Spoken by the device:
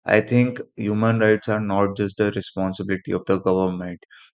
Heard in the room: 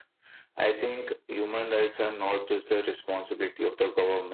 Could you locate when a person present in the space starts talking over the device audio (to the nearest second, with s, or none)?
none